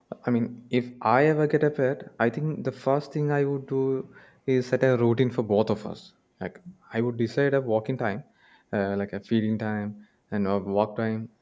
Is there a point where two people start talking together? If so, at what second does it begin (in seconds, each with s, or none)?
none